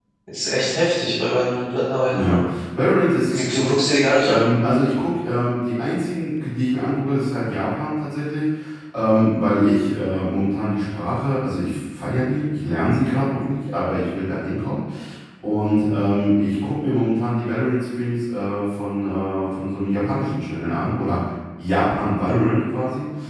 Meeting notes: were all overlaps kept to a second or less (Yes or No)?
Yes